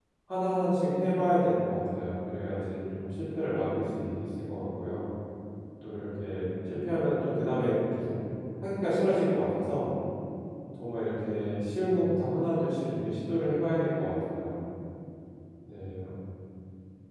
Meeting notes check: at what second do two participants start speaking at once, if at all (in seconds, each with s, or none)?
none